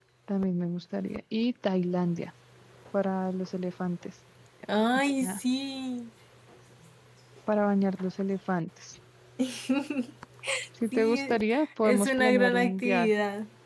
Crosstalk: present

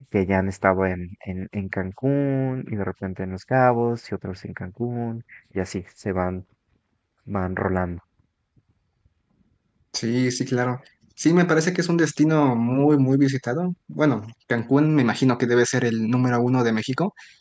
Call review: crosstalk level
none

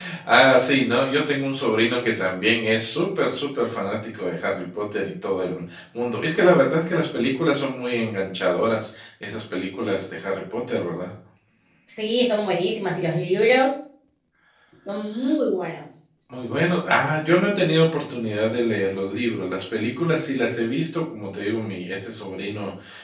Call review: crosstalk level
none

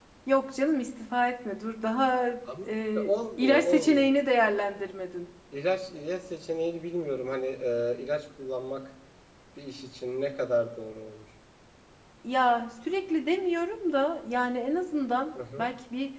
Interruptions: present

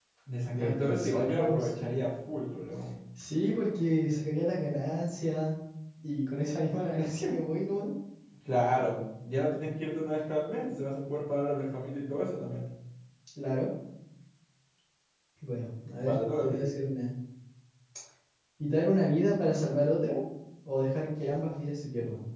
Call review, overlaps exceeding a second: present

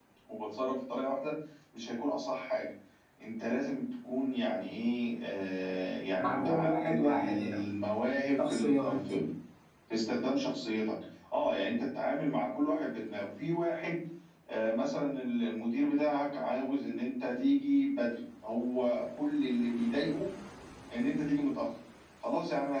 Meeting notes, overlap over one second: present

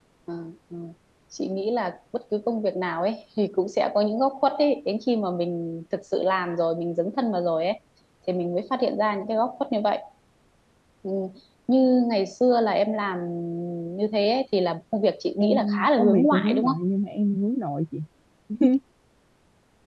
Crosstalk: present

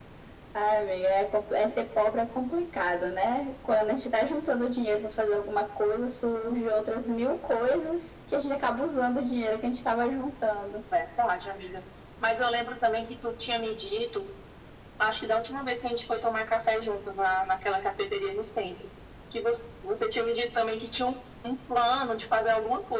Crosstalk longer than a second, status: none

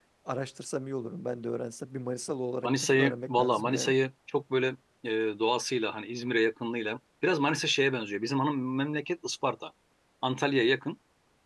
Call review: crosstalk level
present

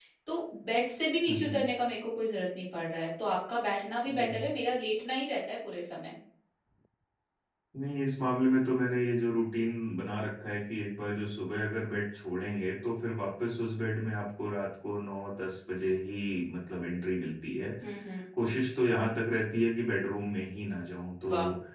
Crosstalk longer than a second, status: none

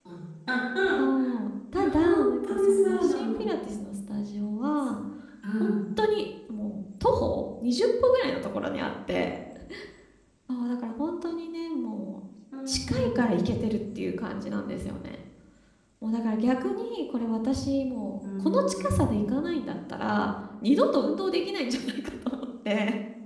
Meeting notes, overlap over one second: present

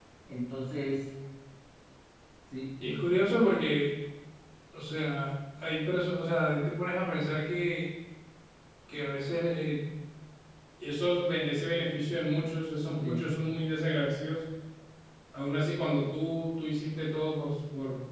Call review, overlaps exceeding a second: none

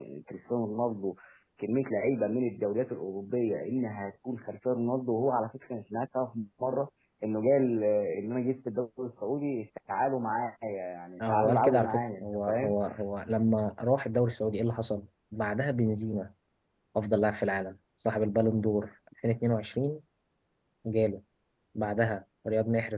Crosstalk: present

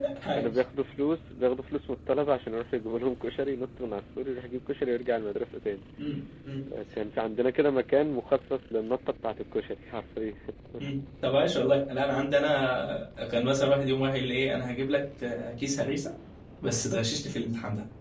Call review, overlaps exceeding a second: none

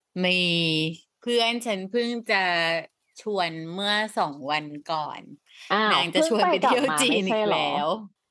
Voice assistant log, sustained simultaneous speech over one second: present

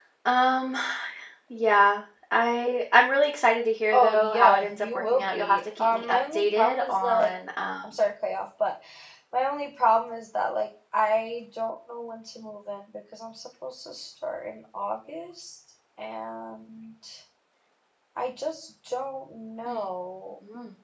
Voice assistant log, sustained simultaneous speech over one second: present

